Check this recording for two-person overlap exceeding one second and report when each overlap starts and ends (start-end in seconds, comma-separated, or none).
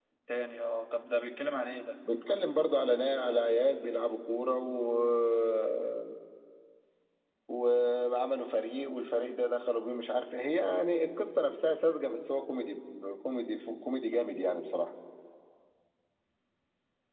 none